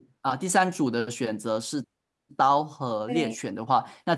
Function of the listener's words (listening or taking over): listening